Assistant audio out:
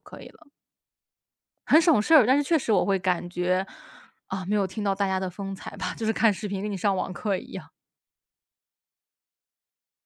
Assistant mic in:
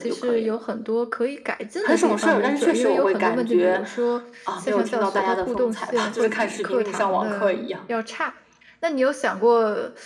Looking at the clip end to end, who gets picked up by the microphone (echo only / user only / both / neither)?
both